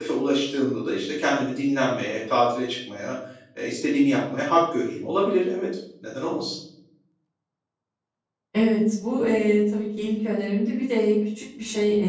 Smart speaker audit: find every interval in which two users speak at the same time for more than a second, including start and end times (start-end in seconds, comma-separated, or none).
none